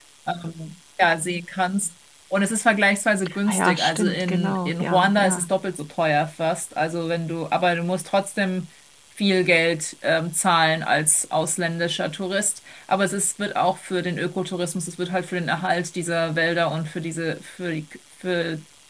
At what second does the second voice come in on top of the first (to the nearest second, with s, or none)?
3 s